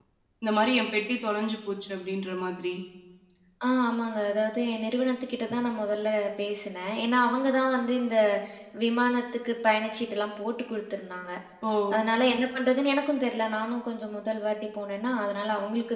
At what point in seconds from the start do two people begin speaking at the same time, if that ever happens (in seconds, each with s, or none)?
none